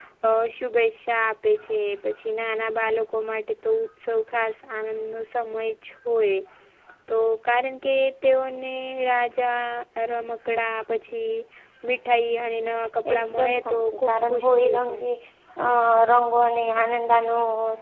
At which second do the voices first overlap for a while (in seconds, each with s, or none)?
13.1 s